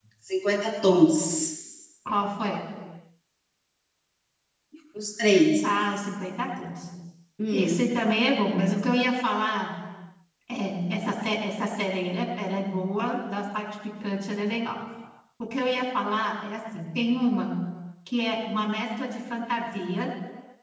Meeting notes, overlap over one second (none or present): none